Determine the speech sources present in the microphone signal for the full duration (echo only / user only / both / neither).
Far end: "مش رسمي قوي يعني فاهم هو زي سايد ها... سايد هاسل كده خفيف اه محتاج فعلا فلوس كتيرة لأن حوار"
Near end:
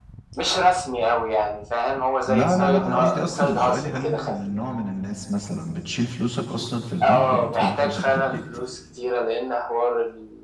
both